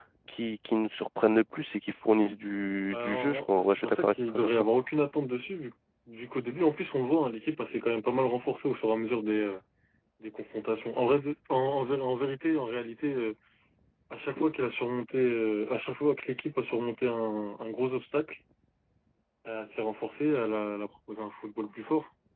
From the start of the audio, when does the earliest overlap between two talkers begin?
2.9 s

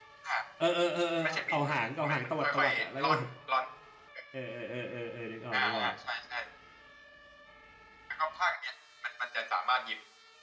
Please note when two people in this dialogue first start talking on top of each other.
1.2 s

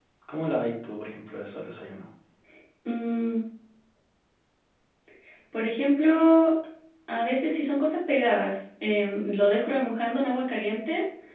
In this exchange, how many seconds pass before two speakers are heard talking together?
none

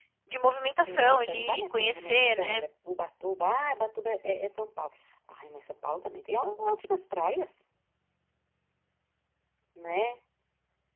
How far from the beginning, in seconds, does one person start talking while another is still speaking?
0.9 s

